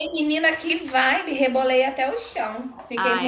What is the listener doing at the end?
taking over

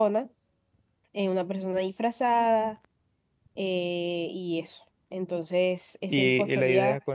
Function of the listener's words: taking over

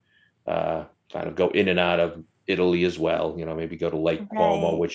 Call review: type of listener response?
listening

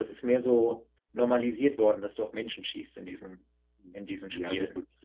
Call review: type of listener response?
taking over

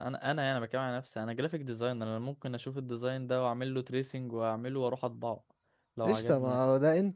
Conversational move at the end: taking over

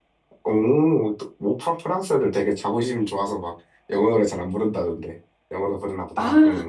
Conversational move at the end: taking over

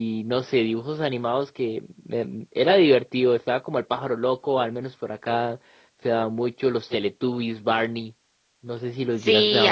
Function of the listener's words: taking over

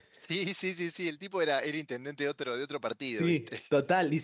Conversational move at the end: taking over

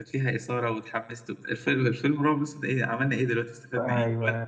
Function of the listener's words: taking over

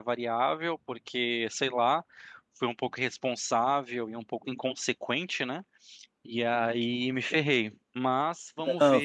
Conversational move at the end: taking over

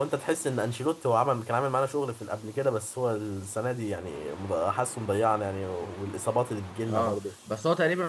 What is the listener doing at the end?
taking over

